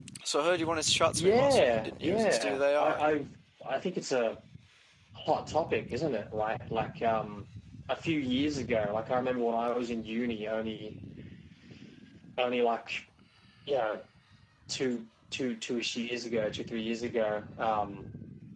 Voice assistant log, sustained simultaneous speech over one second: present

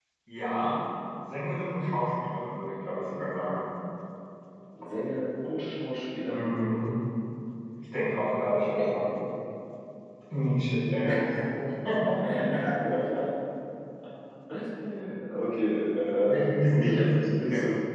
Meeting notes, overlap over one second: present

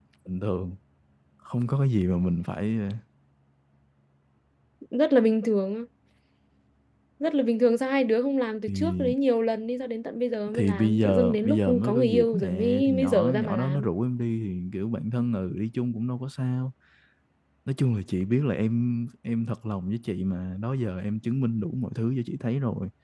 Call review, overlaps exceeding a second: present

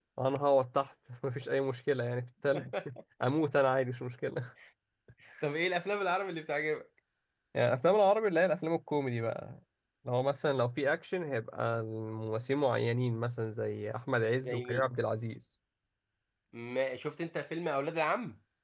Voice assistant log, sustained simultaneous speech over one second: none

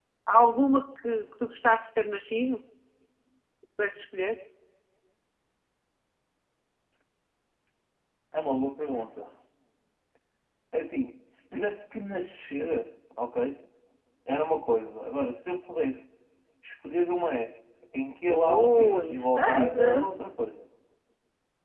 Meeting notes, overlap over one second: present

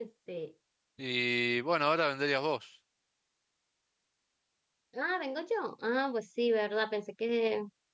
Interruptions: none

